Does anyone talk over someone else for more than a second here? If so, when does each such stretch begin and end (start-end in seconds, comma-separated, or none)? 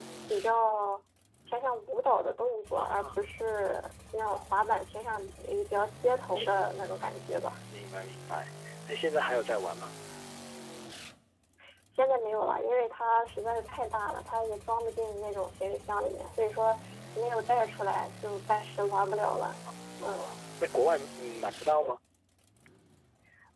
none